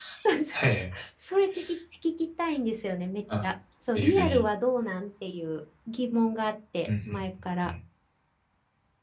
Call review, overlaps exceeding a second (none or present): none